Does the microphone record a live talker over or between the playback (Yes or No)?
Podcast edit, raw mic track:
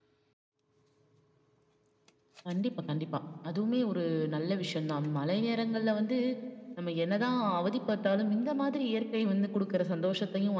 No